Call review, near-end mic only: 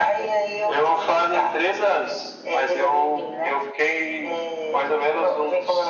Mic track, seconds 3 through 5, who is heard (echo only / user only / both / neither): echo only